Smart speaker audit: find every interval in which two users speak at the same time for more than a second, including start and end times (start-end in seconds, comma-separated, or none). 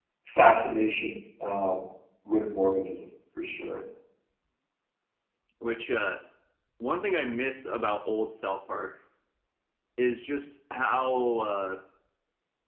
none